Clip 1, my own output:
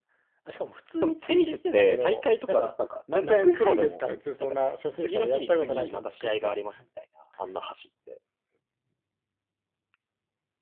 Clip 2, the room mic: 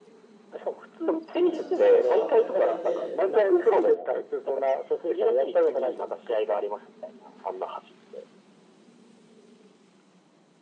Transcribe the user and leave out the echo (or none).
まあちょ、ちょっと変わった子がいて、あのクラスに。